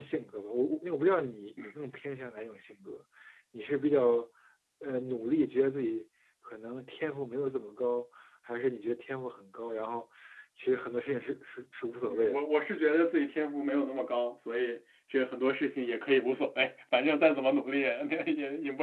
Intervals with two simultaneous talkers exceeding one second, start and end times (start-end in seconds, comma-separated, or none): none